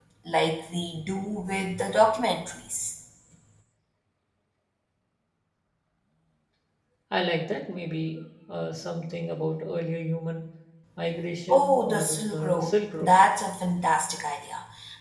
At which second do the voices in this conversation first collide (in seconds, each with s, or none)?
11.5 s